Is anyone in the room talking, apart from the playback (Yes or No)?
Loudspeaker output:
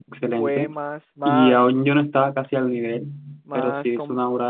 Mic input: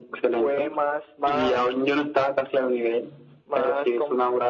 No